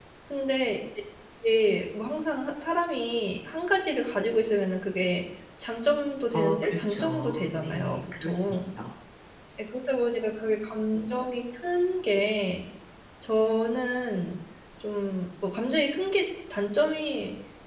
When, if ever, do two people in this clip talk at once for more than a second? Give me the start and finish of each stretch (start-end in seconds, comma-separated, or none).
6.3-8.6